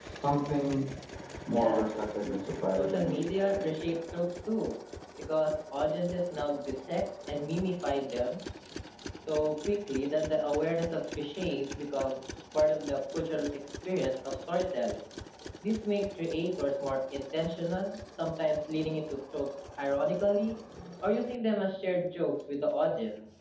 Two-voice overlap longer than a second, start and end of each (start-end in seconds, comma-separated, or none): 2.7-3.9